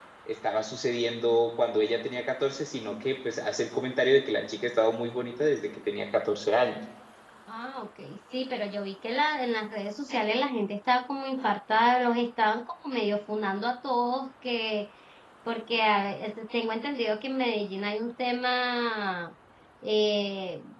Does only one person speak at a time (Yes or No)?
Yes